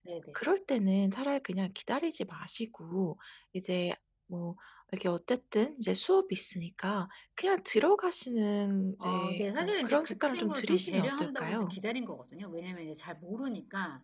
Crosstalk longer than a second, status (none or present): present